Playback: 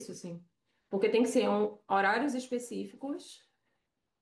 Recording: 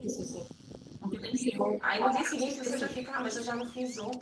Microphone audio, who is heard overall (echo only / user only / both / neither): both